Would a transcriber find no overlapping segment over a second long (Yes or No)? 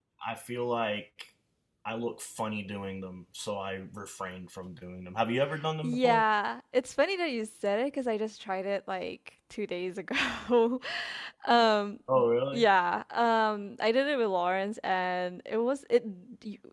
Yes